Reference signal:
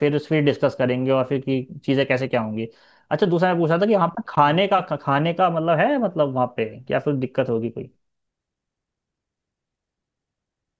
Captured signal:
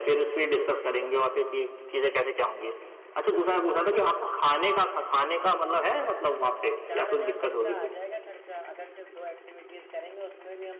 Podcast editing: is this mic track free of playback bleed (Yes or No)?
No